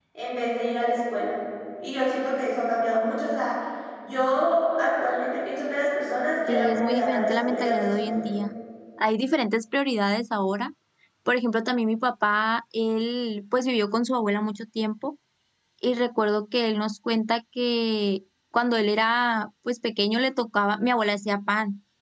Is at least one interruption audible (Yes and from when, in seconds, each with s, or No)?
Yes, from 6.5 s